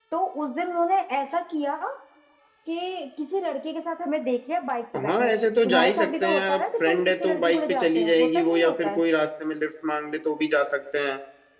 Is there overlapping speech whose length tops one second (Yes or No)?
Yes